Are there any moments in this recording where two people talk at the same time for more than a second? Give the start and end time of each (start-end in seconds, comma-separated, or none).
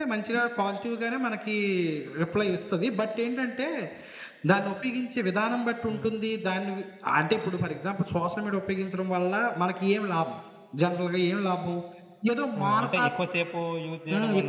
none